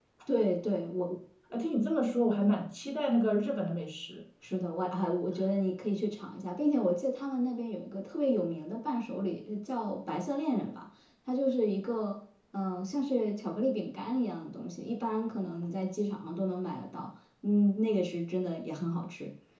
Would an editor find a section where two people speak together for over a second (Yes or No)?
No